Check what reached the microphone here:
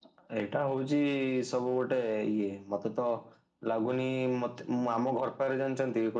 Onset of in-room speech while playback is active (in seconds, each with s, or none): none